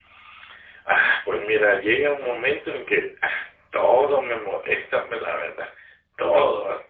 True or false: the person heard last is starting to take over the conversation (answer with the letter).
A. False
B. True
A